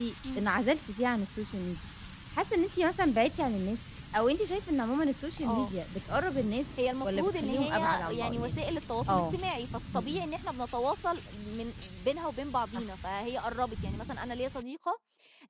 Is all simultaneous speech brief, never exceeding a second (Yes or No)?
No